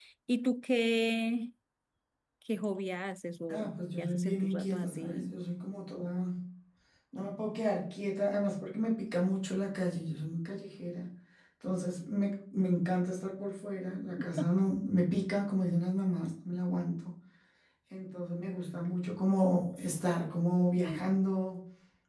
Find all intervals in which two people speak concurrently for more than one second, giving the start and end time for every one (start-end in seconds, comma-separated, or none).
3.5-5.3